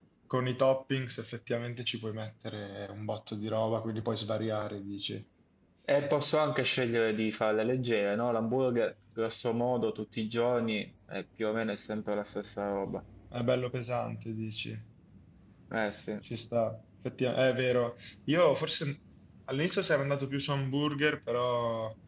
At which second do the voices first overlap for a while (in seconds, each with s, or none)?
none